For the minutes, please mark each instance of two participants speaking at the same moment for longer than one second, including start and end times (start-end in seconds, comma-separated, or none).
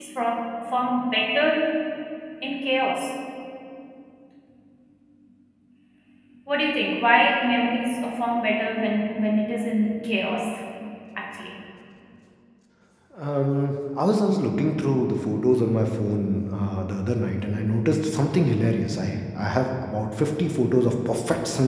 none